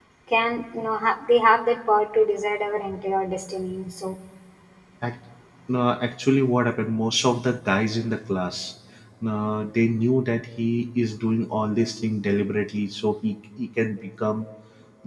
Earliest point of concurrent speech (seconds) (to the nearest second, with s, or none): none